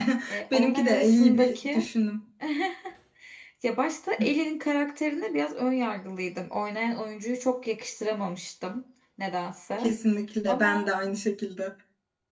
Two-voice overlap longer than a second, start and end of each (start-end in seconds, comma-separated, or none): 0.5-1.9